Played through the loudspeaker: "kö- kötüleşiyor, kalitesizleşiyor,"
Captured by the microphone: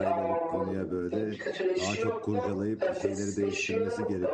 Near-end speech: present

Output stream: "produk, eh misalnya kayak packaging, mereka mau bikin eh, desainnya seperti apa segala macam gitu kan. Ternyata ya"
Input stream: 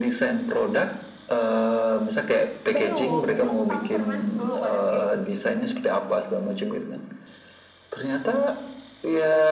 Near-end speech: present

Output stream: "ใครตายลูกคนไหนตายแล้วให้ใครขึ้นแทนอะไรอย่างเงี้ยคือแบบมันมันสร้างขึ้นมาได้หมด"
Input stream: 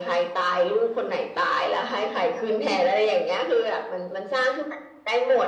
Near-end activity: none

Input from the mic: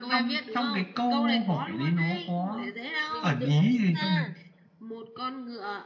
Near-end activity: present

